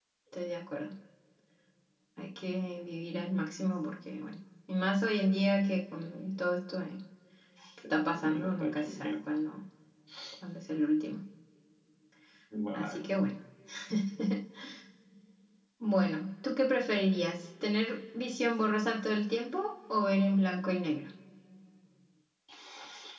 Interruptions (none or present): present